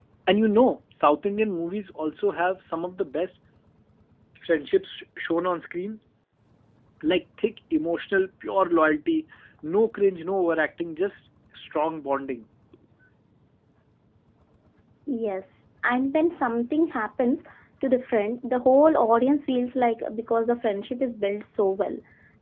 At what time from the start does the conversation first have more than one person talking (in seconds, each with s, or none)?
none